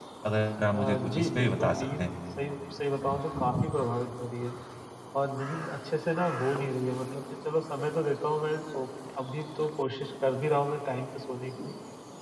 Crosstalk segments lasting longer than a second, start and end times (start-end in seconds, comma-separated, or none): 0.7-2.1